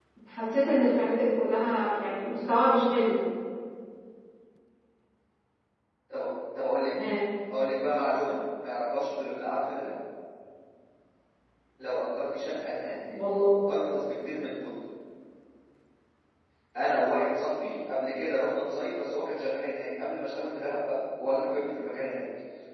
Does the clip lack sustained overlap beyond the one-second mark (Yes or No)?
Yes